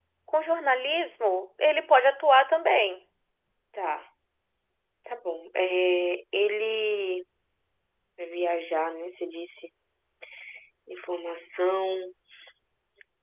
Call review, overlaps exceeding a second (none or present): none